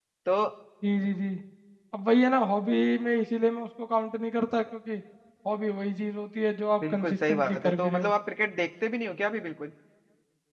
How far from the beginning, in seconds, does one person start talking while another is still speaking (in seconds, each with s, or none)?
6.8 s